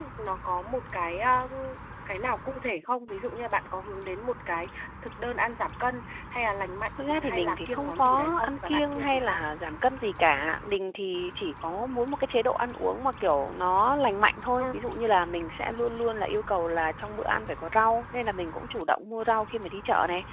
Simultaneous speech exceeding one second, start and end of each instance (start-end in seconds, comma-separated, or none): 7.1-9.4